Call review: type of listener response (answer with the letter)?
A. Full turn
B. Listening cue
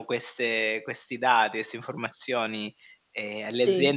B